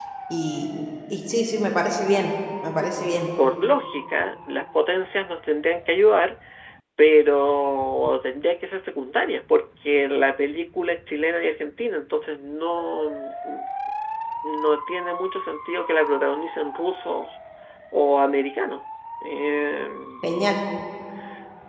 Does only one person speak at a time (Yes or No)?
Yes